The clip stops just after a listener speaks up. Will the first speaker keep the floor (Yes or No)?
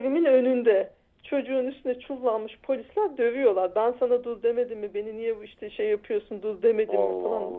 Yes